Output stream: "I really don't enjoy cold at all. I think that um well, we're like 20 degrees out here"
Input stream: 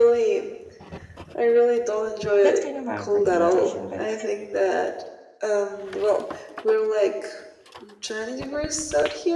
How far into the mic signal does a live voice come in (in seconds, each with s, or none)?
2.4 s